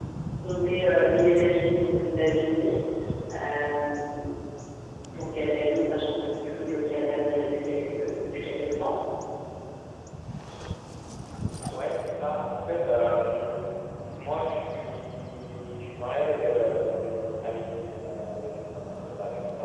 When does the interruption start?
none

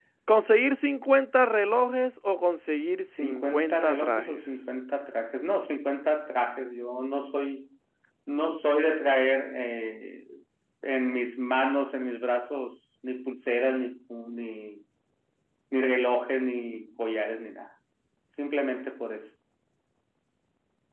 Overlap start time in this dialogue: 3.2 s

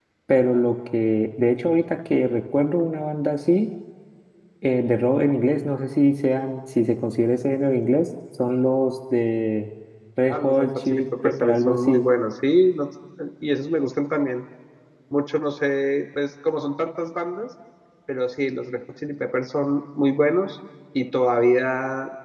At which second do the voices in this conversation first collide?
10.3 s

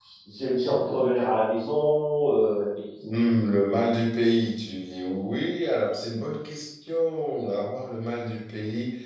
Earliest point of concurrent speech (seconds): none

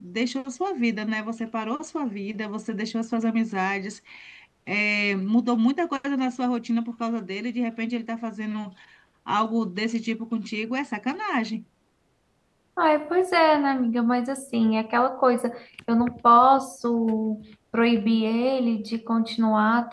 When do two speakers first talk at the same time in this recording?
none

